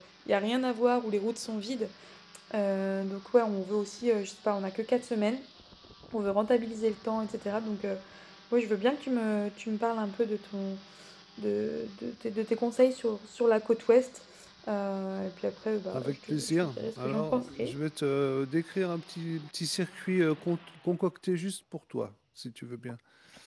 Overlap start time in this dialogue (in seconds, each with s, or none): 15.9 s